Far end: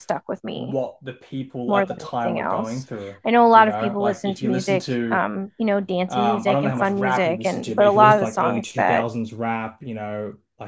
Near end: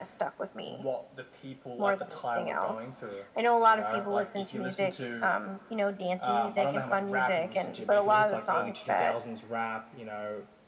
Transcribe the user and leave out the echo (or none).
none